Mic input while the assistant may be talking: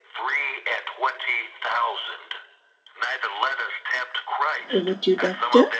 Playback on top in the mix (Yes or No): No